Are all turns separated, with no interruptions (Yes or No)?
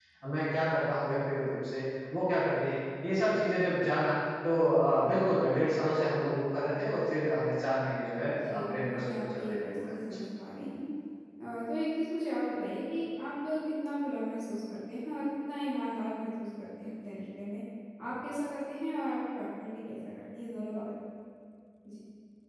No